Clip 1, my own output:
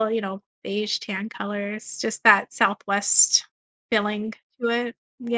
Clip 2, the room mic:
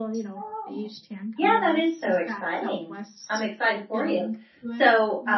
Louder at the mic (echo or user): user